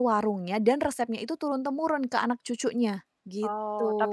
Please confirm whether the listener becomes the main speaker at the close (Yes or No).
Yes